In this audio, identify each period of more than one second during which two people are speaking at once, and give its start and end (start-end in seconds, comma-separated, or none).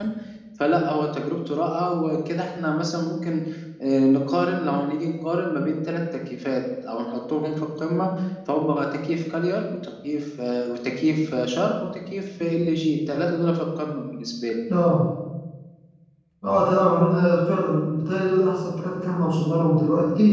none